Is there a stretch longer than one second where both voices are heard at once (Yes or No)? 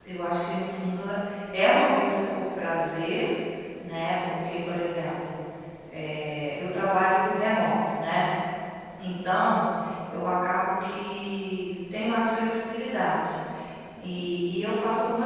No